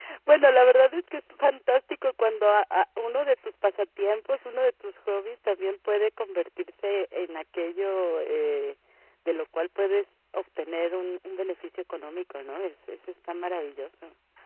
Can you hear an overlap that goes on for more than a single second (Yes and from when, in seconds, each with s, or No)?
No